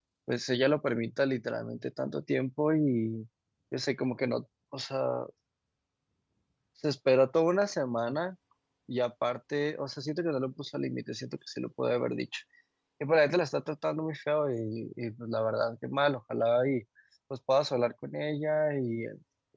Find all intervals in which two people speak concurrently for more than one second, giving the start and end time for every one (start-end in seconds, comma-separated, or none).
none